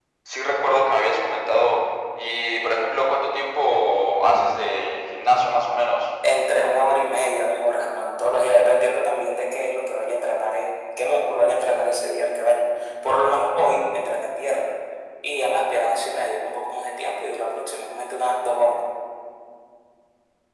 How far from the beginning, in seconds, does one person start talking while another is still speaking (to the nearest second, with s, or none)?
none